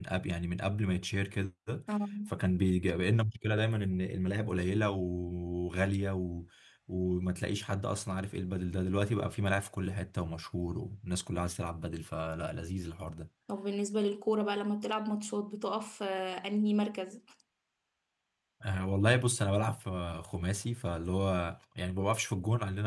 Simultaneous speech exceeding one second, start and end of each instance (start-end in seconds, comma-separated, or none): none